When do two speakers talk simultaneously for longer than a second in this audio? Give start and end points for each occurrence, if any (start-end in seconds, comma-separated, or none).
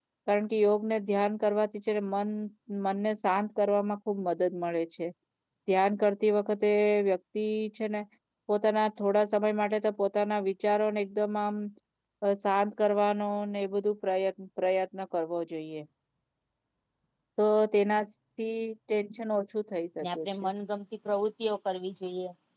none